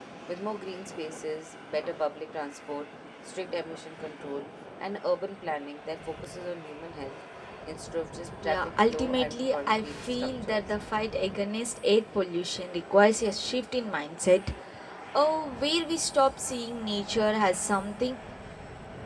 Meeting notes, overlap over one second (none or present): present